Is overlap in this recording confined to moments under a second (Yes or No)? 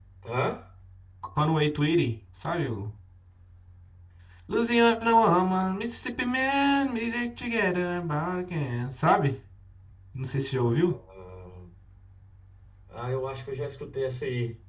Yes